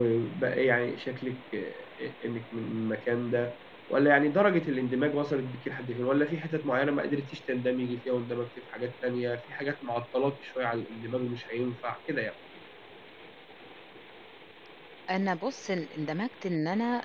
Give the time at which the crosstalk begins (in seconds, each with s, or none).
none